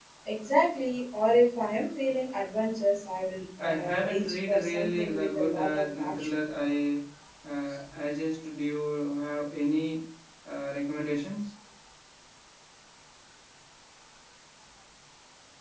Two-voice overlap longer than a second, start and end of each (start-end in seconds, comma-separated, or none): 3.6-6.3